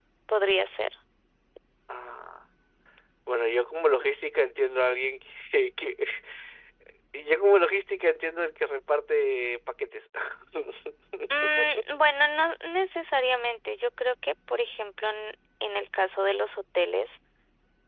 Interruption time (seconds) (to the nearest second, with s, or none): none